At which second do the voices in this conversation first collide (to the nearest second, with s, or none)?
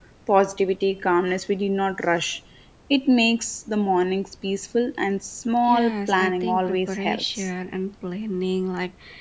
6 s